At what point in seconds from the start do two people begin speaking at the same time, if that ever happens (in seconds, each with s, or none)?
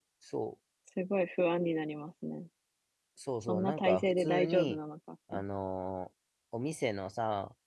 3.4 s